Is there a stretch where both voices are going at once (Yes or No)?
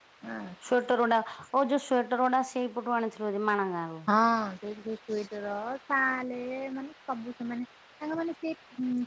No